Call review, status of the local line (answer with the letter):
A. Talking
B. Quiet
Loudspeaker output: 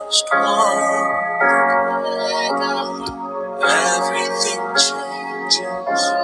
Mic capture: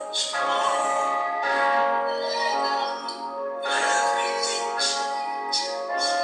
B